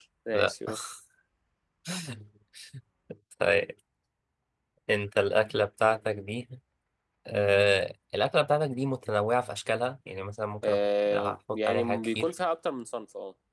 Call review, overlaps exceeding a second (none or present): present